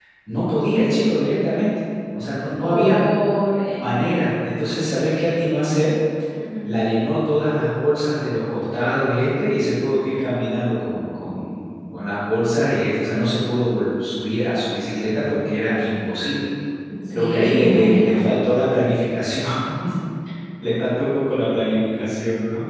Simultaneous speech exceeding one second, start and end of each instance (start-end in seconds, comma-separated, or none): 17.1-18.3